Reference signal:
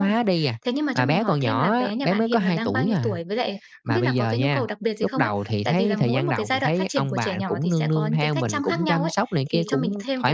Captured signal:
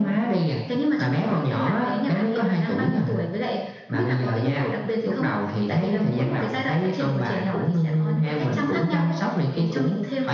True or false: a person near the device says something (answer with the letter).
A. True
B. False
B